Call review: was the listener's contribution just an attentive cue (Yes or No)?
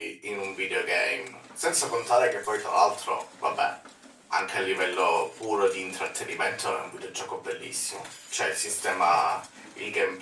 Yes